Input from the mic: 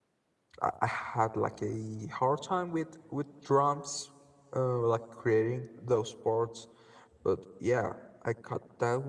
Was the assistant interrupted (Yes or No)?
Yes